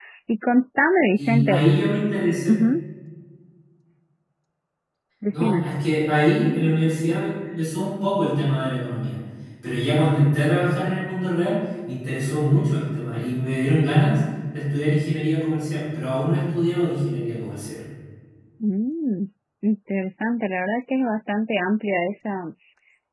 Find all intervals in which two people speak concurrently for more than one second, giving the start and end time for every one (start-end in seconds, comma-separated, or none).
none